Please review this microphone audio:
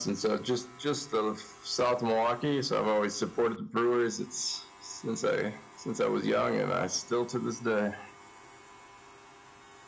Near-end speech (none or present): none